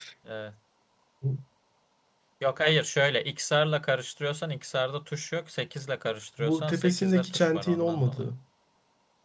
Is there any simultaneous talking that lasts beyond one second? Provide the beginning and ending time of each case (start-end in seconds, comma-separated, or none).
6.4-8.3